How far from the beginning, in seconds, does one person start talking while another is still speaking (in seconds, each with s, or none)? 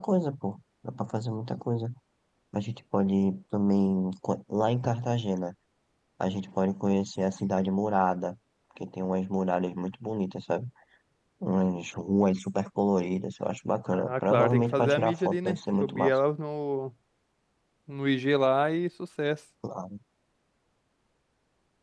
13.9 s